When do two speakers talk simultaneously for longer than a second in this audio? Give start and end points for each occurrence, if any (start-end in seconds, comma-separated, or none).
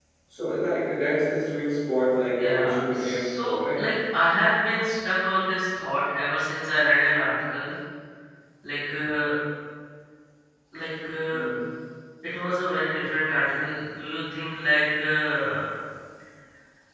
2.4-3.9